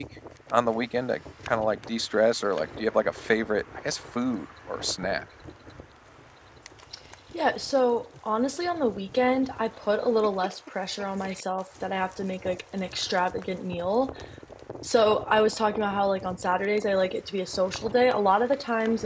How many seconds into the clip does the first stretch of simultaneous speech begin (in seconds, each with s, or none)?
none